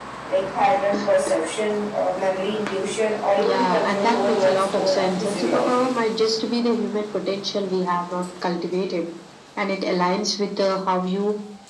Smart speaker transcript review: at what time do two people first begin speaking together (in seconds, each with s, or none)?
3.4 s